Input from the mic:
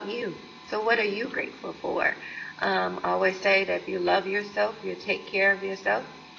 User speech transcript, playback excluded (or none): none